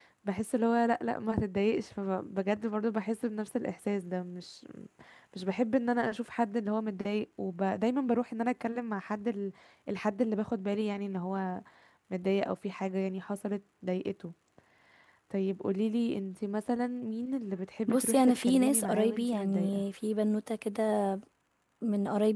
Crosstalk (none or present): present